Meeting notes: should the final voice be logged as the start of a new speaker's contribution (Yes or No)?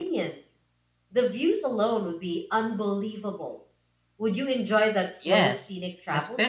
Yes